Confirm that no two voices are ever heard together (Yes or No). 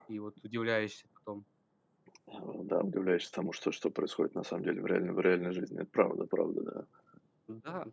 Yes